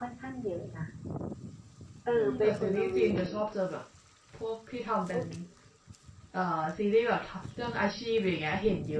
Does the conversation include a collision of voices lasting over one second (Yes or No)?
Yes